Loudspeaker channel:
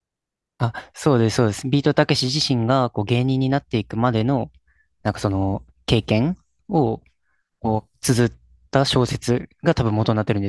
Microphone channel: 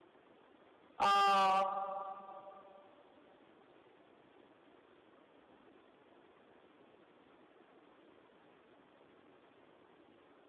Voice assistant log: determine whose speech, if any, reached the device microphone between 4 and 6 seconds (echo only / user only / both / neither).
neither